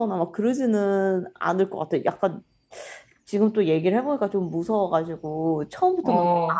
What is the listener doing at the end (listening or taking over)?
listening